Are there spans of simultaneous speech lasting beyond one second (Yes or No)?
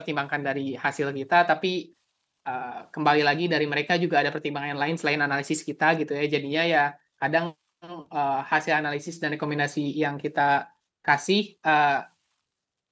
No